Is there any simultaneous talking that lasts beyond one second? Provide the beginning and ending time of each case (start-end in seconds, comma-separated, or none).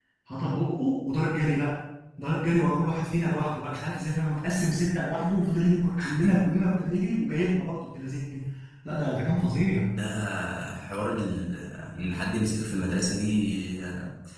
none